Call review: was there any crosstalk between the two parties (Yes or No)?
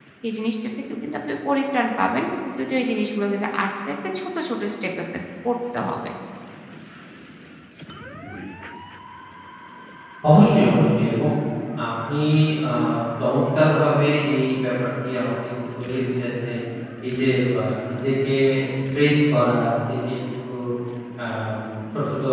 No